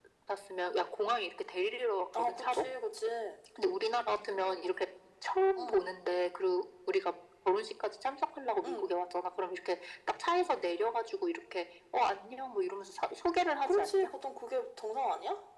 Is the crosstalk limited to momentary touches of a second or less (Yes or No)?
Yes